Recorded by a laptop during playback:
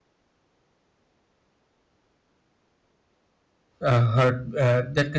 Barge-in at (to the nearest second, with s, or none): 4 s